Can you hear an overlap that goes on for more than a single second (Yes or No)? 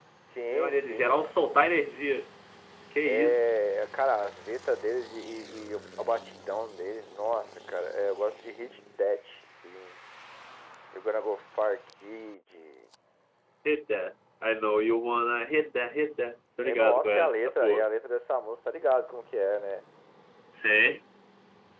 Yes